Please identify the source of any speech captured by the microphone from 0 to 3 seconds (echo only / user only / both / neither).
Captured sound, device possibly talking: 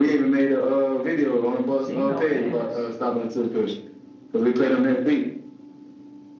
both